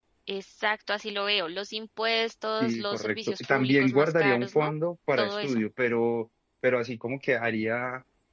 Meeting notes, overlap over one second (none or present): present